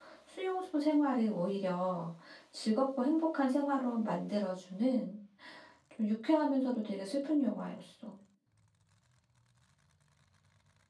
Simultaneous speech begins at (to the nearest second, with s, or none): none